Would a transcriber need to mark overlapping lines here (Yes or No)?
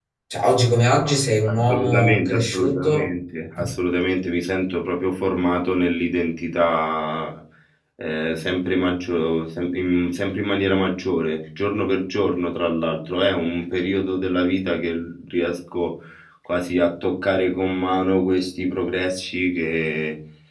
Yes